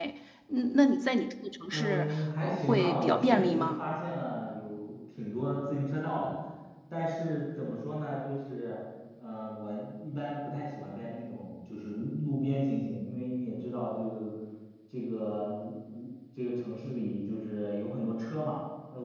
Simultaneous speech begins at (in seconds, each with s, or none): 1.7 s